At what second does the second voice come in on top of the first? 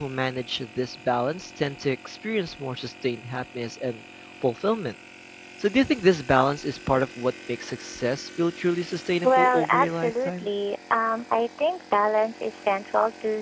9 s

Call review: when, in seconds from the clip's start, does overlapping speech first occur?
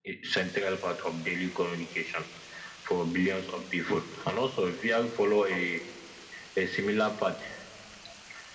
none

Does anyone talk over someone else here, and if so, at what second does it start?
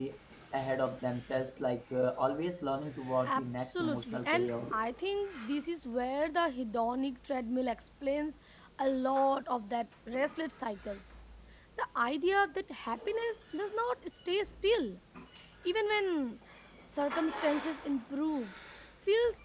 3 s

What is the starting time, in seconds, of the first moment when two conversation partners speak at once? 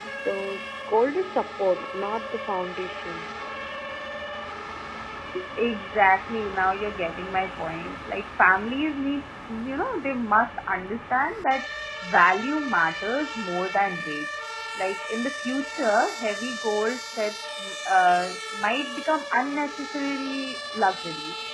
none

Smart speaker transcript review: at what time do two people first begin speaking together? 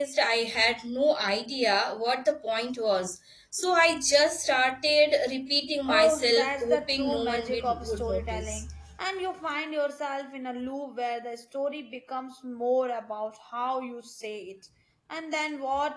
6 s

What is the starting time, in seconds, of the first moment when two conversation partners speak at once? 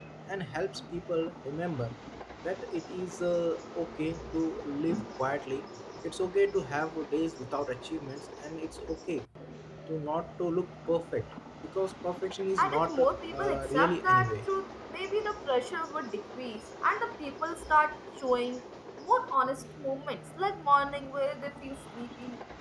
13 s

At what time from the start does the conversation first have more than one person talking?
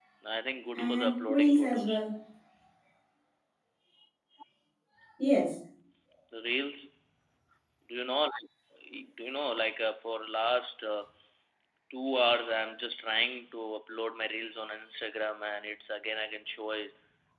1 s

